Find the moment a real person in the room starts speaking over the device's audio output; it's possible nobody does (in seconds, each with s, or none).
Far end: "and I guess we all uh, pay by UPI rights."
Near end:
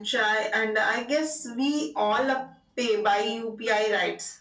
none